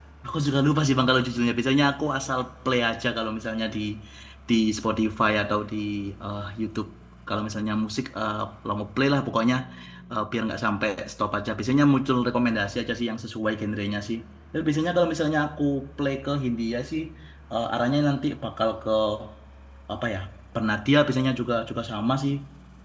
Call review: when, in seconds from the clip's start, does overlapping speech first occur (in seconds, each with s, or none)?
none